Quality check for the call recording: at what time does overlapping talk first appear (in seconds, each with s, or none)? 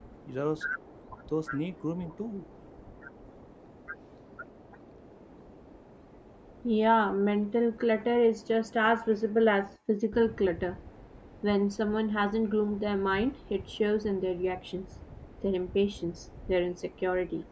none